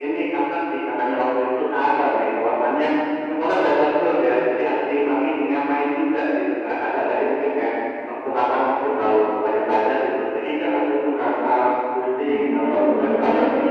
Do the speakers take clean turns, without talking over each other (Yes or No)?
No